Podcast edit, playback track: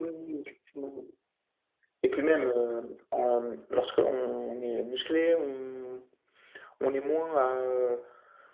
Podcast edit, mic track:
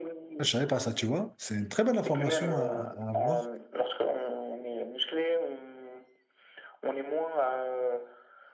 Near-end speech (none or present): present